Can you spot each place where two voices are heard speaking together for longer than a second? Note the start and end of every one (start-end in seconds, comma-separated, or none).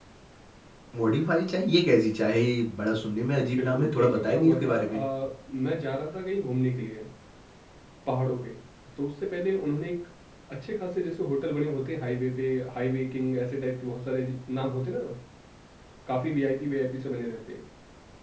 3.6-5.0